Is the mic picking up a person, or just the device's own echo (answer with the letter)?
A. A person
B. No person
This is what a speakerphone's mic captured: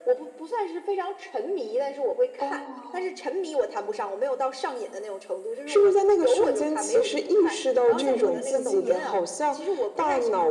A